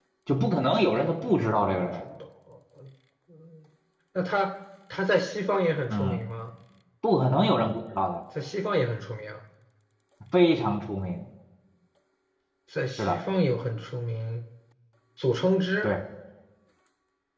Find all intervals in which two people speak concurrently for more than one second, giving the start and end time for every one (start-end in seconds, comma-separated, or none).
0.6-2.0